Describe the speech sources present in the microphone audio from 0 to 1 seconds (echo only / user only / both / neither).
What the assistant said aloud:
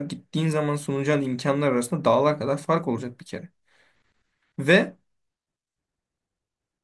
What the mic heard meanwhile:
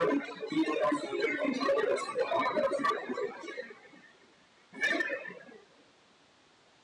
echo only